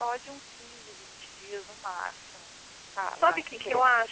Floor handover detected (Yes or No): Yes